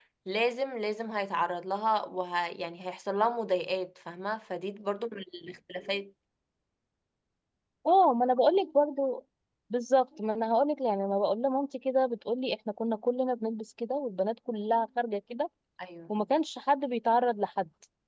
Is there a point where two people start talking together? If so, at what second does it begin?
none

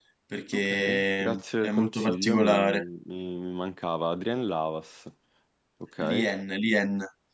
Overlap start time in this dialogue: 0.5 s

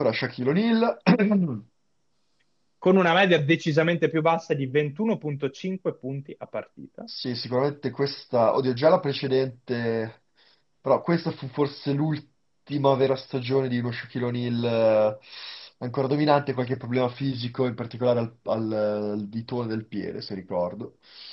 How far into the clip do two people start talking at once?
none

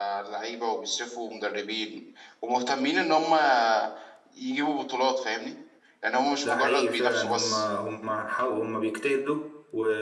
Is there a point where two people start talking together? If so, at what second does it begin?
6.4 s

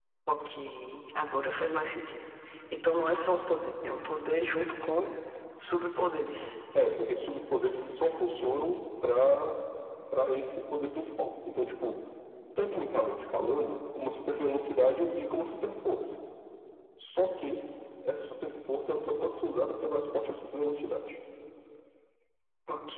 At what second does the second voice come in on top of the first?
none

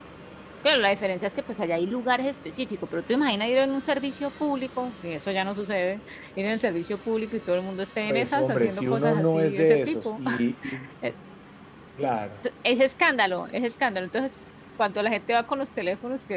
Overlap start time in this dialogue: 8.1 s

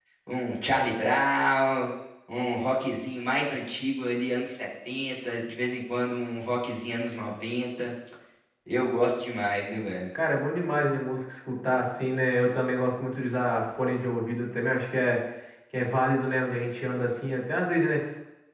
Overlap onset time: none

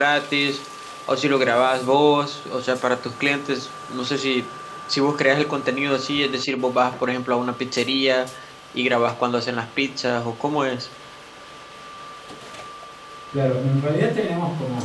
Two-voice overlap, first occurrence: none

